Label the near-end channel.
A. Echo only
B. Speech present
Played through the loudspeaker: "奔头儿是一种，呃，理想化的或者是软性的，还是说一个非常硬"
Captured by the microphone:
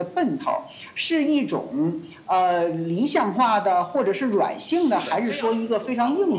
B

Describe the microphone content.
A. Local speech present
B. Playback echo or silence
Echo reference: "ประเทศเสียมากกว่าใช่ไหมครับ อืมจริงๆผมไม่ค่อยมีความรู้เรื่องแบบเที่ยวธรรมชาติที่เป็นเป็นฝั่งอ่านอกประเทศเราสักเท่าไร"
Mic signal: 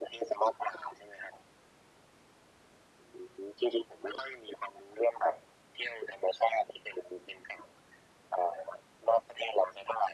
B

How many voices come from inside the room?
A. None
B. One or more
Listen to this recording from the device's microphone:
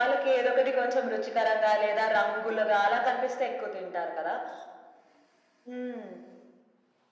A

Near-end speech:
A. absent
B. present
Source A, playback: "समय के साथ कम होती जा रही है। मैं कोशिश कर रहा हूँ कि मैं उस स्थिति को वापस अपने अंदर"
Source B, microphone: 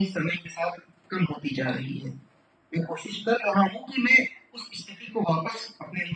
A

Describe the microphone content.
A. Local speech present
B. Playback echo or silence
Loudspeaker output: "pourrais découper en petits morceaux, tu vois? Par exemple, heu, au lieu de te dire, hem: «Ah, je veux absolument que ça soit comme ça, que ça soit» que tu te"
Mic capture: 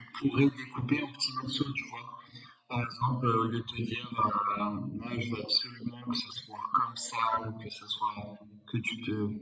B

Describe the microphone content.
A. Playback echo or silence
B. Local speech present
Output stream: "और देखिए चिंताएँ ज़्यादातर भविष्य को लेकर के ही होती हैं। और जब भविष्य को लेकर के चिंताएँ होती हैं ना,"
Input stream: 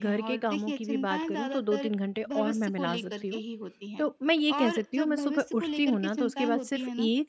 B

